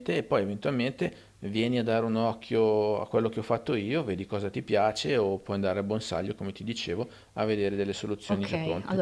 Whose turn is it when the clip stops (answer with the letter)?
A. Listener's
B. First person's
A